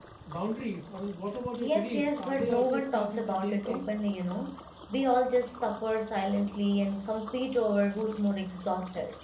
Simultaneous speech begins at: 1.6 s

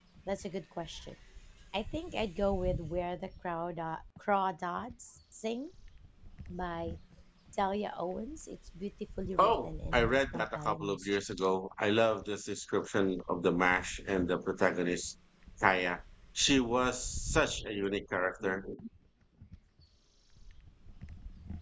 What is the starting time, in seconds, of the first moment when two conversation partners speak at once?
9.4 s

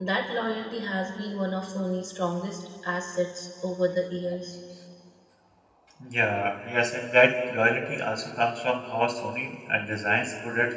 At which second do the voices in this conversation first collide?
none

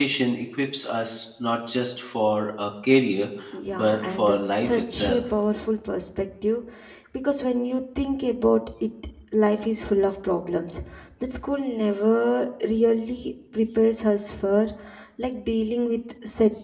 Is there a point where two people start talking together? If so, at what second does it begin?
3.7 s

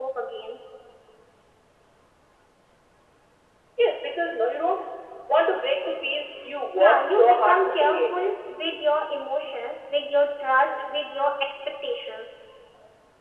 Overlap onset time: 6.7 s

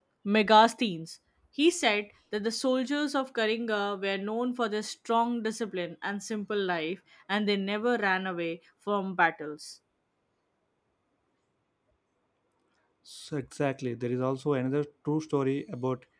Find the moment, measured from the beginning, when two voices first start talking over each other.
none

